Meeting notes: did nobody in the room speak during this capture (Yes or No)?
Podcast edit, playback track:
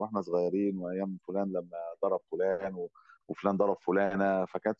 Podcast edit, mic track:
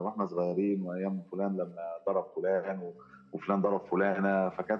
Yes